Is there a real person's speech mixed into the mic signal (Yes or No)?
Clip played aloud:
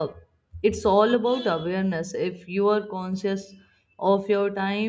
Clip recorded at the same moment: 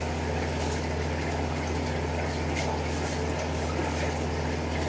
No